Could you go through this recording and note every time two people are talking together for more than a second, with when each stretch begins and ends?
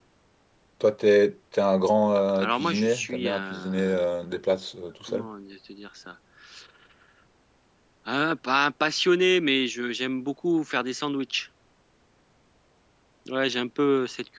2.4-4.0

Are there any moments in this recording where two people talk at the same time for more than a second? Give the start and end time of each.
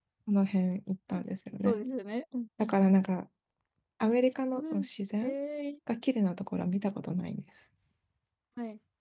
none

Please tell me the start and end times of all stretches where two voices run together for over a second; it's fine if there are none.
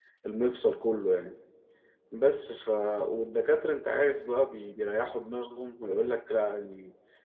none

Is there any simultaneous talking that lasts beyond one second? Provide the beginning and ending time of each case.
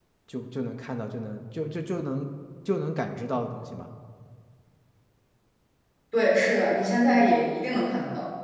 none

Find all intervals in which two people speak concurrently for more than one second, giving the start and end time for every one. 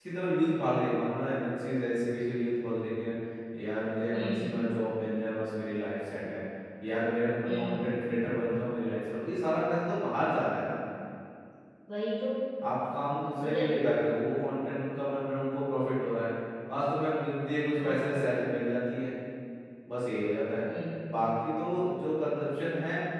none

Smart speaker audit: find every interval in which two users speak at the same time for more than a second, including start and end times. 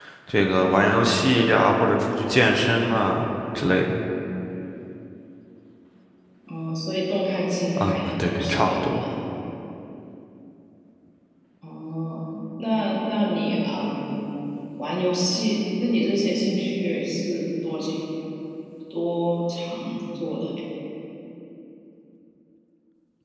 7.8-9.0

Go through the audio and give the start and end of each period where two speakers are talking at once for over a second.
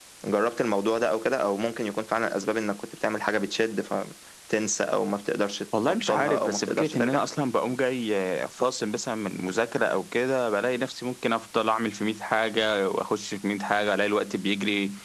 5.9-7.2

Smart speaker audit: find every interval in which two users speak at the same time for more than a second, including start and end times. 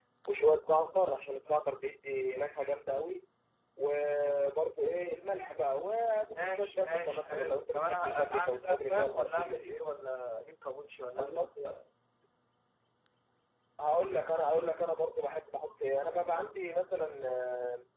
6.3-9.7

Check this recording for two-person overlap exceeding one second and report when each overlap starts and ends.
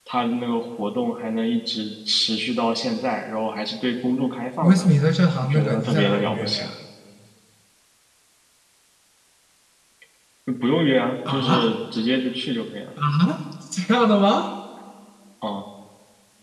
5.4-6.7

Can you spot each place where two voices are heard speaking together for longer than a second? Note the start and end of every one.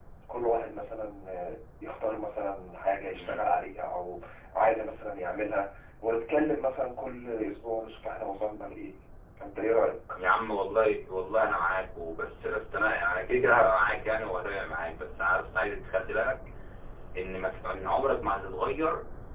none

